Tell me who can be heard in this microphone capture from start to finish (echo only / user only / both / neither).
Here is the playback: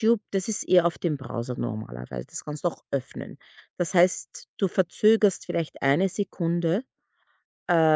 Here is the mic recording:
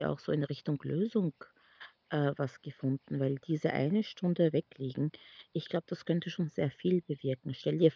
user only